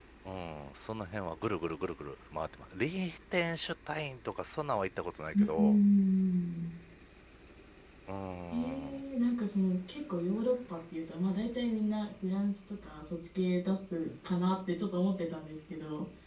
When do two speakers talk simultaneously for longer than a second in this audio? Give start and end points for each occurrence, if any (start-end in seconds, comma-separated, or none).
none